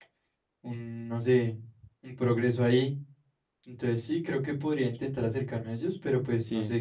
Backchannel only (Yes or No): No